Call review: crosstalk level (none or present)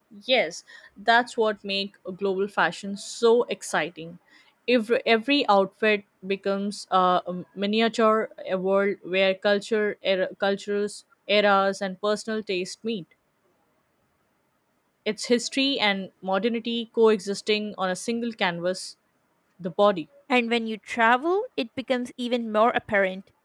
none